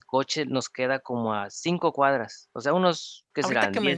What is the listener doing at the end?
taking over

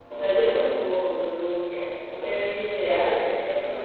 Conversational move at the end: taking over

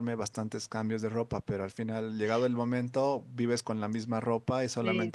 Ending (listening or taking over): listening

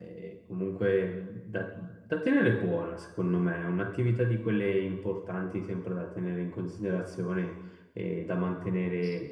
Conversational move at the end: listening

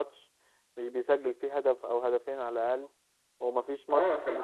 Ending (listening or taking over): taking over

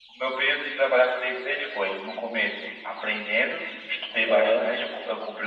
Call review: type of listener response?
listening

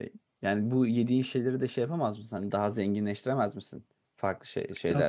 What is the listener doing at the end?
taking over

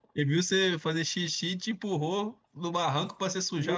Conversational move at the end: taking over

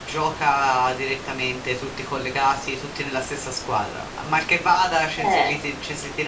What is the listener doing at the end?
listening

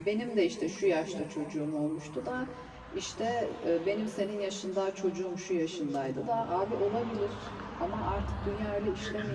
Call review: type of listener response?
taking over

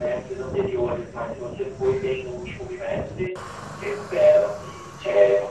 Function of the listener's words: listening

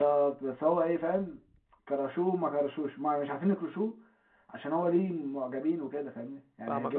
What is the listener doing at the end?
taking over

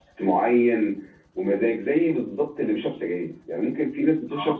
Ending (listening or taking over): listening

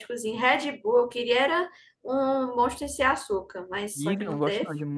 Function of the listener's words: taking over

